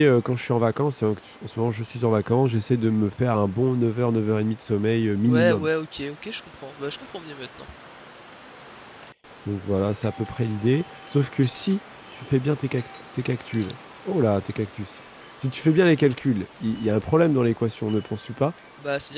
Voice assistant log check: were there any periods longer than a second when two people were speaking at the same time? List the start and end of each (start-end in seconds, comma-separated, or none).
none